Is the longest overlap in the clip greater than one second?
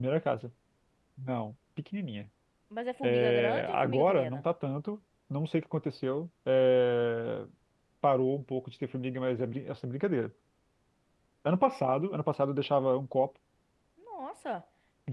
Yes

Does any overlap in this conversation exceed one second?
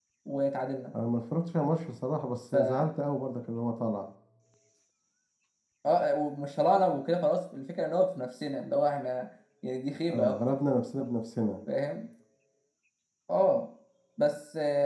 No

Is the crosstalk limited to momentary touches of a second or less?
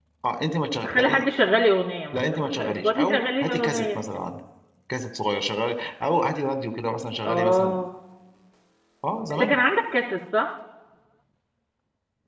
No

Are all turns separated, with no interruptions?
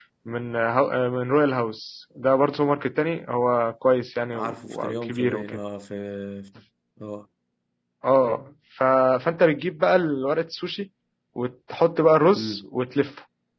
No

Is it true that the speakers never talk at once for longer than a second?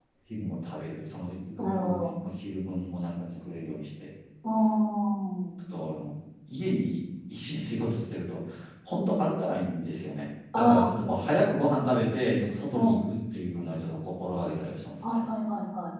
Yes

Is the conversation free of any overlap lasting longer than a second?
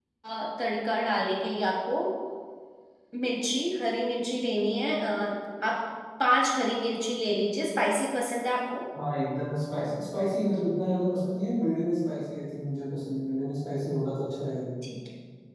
Yes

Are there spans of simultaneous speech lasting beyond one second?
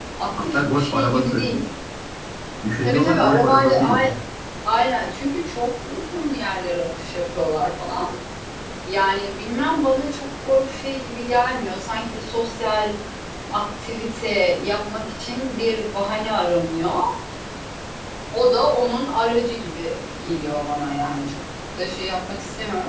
Yes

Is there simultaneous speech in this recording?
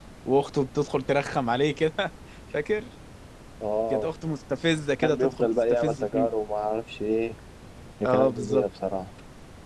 Yes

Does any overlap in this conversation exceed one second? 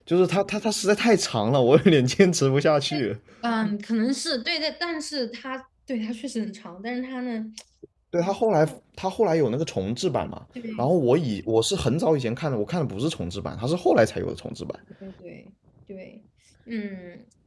No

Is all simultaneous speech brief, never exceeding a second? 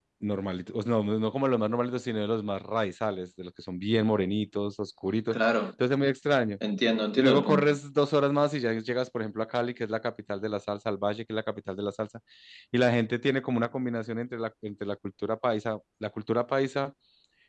Yes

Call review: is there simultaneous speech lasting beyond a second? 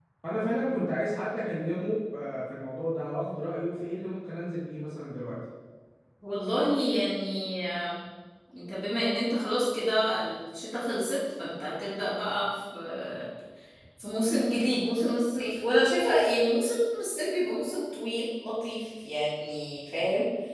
No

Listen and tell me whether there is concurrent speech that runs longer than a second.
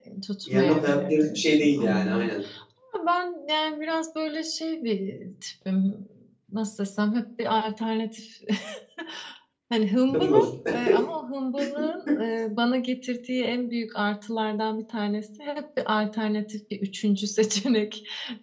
Yes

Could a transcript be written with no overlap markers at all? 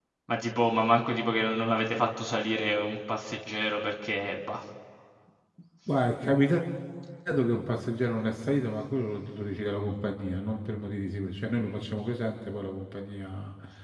Yes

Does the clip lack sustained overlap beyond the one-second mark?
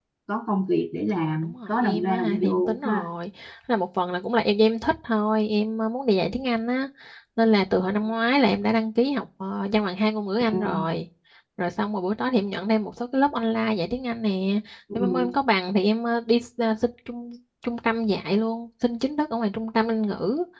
No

